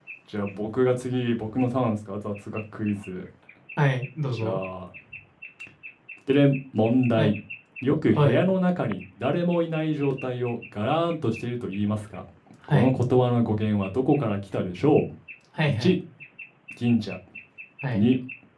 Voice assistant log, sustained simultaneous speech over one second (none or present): none